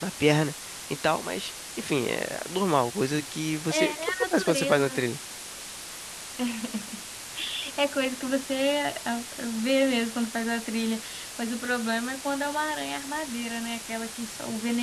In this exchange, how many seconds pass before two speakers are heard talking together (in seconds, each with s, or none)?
3.7 s